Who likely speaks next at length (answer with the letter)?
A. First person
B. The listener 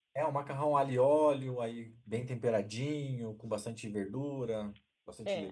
B